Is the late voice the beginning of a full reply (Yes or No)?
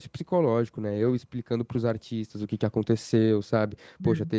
No